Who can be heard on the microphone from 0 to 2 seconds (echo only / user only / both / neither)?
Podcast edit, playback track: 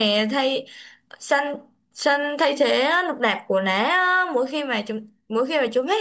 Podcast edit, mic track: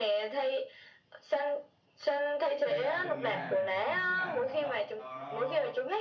echo only